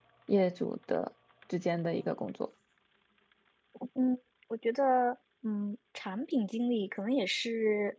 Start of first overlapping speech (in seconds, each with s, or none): none